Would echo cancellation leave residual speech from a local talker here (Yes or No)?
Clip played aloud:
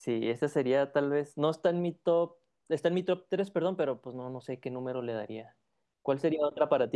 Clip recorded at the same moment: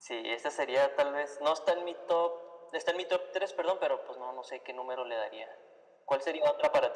No